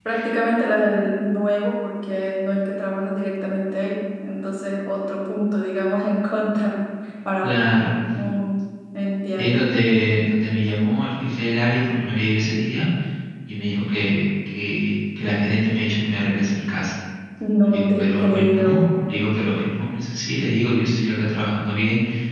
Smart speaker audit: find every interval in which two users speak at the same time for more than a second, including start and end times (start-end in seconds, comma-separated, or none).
17.6-18.9